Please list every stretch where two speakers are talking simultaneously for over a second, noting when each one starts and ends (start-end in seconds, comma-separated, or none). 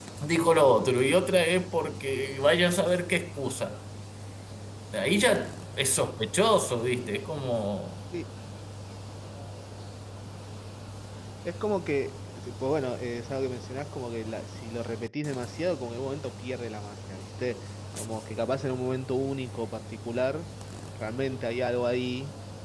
none